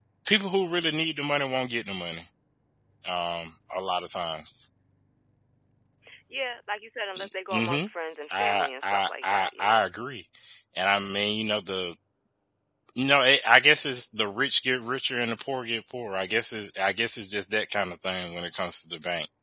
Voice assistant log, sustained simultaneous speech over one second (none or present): present